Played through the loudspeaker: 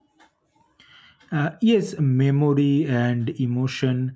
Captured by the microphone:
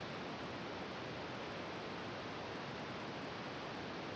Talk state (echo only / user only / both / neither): neither